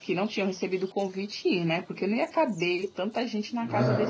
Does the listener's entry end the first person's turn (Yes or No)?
Yes